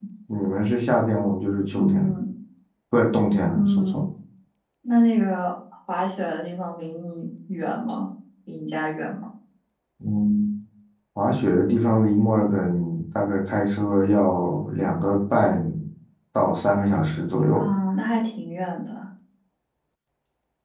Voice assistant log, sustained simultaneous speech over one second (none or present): none